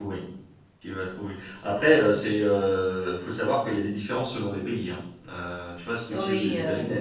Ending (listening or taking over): listening